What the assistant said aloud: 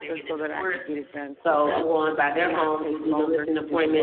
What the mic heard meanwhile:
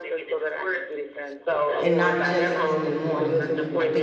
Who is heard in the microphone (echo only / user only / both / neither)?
both